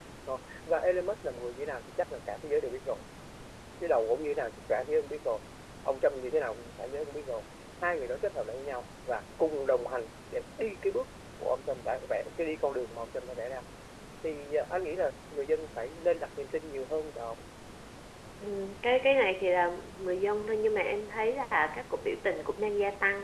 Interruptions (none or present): none